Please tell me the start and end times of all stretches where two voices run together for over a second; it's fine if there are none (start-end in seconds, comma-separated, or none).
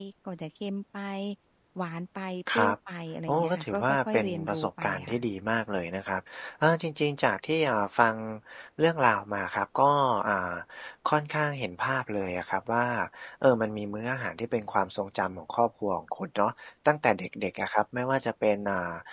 3.3-5.2